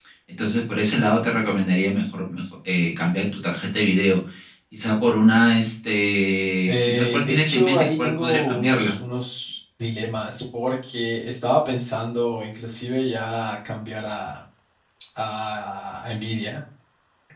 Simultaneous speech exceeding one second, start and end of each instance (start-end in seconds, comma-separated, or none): 6.7-8.9